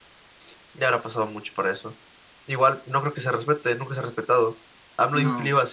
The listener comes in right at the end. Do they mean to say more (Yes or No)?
No